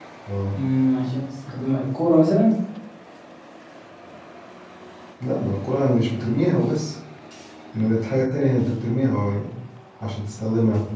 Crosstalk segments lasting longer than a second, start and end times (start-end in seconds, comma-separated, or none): none